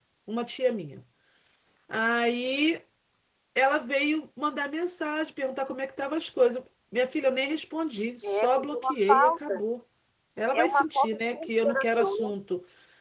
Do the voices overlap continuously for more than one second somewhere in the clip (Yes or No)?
Yes